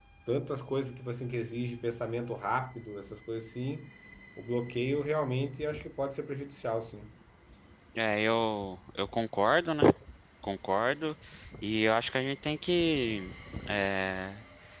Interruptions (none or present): none